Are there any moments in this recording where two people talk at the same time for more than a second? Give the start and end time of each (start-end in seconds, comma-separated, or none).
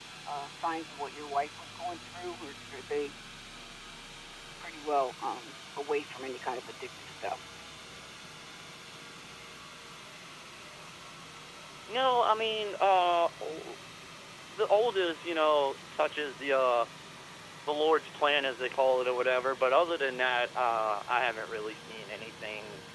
none